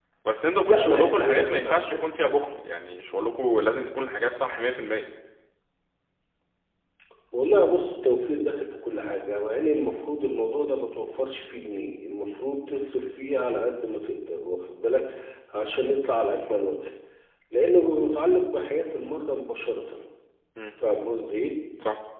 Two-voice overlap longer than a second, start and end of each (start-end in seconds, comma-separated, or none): 0.7-2.1